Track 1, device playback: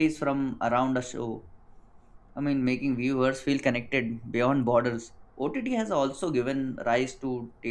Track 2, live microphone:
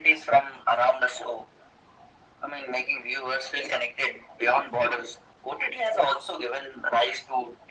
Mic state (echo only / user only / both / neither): echo only